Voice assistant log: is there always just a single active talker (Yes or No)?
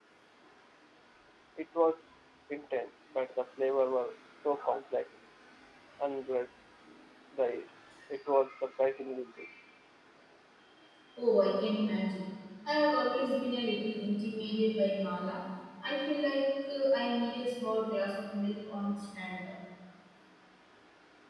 Yes